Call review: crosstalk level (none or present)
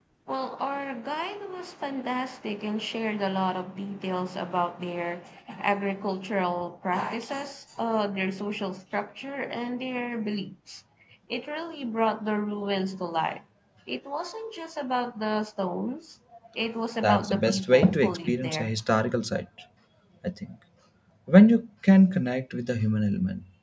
present